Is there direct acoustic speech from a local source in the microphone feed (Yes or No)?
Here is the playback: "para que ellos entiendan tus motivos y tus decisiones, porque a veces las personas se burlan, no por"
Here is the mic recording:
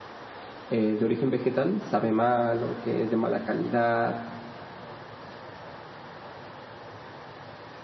Yes